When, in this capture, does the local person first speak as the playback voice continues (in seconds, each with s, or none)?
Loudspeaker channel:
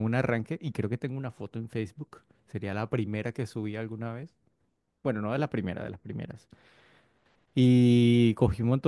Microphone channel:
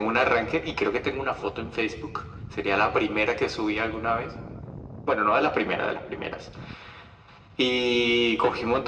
none